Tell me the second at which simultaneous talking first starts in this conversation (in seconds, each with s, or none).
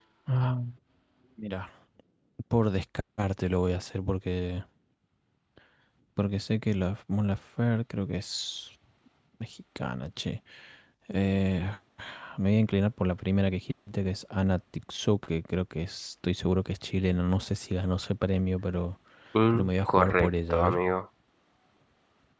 19.5 s